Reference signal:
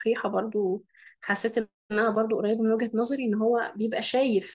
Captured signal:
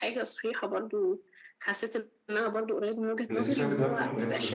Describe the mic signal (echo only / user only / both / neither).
both